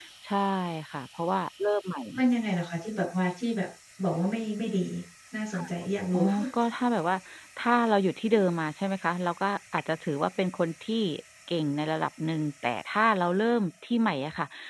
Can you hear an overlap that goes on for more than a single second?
No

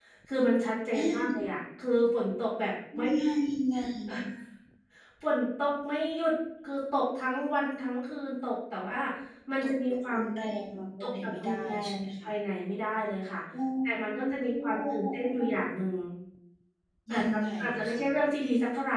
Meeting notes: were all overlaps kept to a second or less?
No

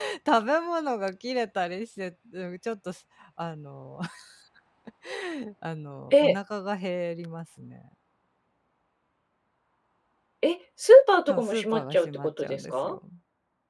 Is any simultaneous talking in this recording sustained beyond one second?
Yes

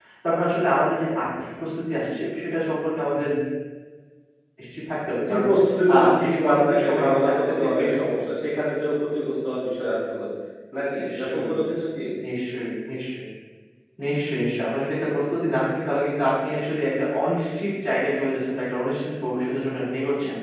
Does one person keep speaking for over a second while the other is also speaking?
Yes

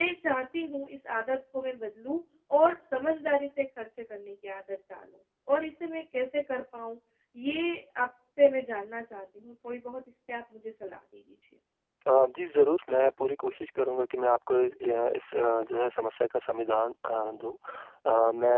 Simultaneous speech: No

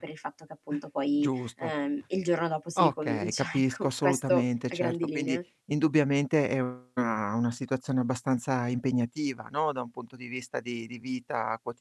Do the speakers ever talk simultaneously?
Yes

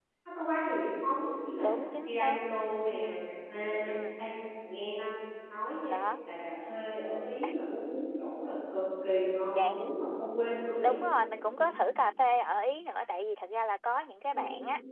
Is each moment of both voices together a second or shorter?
Yes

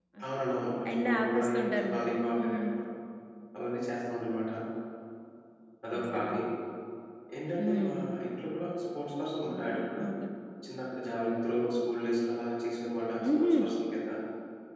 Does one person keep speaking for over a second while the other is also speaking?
Yes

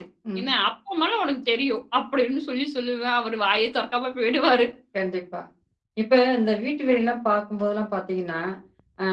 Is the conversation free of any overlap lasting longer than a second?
Yes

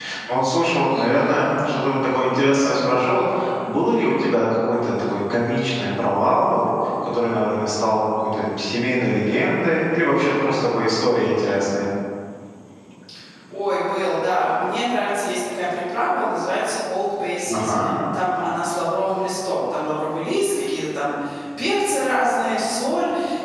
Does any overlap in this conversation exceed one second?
No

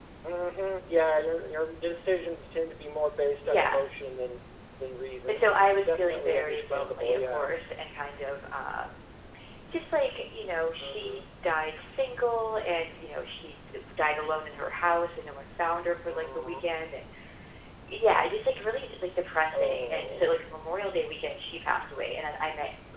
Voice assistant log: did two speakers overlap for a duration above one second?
Yes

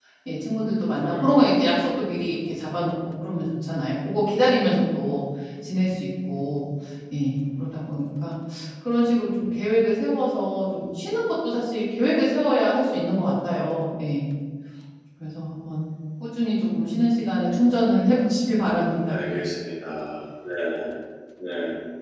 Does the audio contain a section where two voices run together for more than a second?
No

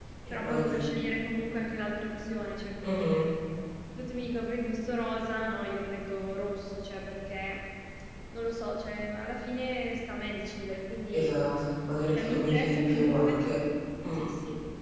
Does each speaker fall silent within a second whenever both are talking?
No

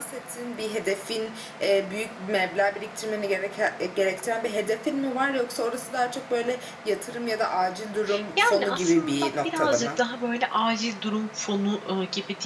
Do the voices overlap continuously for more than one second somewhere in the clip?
Yes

